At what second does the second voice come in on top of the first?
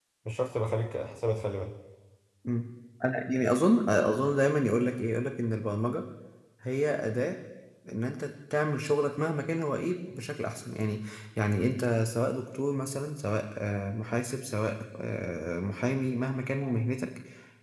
none

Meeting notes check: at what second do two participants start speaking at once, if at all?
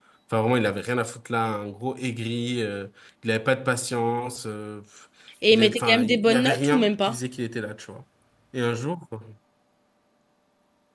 5.5 s

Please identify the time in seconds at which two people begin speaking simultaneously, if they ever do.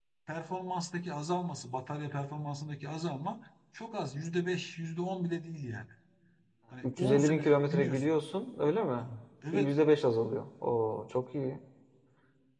6.8 s

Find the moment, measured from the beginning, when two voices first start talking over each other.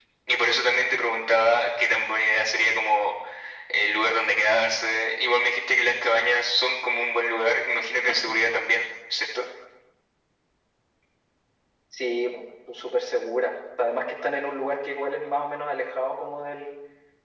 none

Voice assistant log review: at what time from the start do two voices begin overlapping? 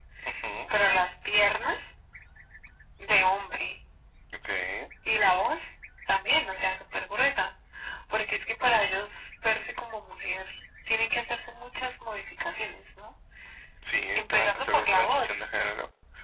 14.2 s

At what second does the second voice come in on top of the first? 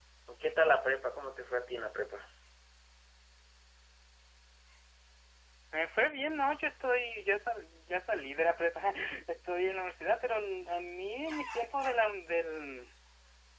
none

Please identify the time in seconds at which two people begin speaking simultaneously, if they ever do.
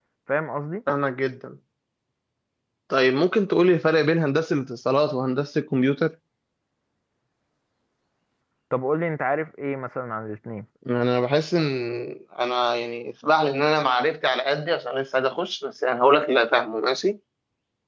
none

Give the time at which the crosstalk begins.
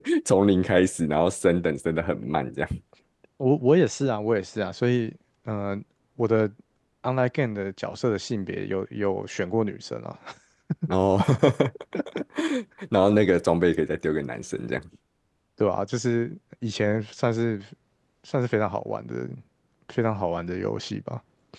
none

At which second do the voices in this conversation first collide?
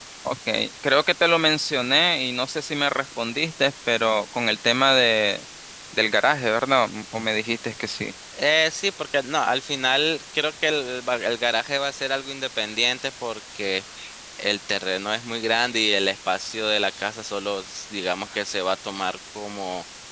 none

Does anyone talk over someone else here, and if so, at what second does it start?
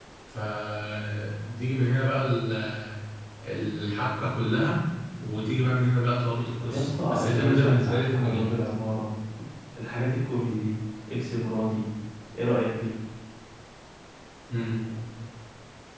6.6 s

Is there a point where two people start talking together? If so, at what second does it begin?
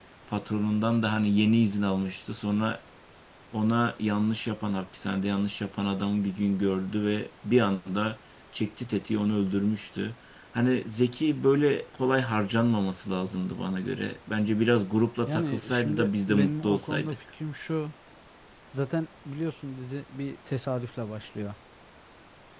15.3 s

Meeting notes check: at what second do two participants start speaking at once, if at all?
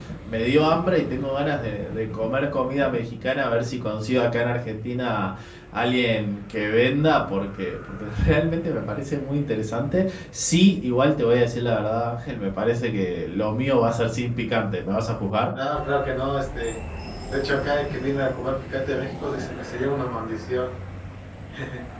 none

